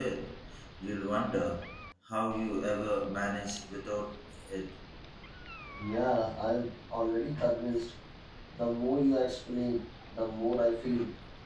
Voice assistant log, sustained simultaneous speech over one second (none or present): none